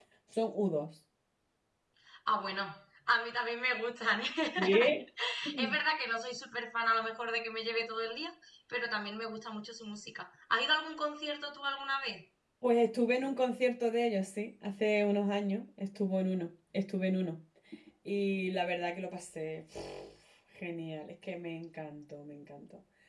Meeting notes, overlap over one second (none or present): none